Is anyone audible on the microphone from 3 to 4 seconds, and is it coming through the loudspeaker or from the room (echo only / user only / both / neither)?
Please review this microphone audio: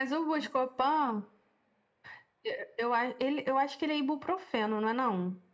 echo only